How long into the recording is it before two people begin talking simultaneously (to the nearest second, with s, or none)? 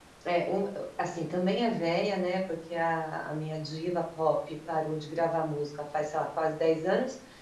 none